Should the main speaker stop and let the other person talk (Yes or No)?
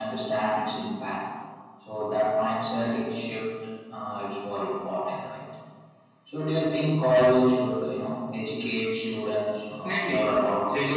Yes